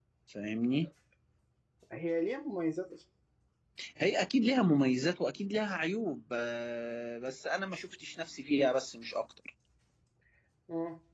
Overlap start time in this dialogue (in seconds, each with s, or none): none